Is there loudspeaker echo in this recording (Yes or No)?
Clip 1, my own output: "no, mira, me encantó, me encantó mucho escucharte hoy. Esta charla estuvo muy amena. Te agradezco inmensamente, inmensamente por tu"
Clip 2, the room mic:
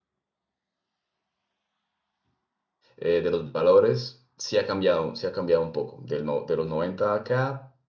No